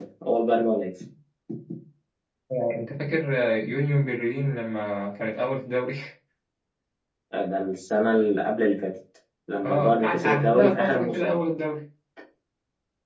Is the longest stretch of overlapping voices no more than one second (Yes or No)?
No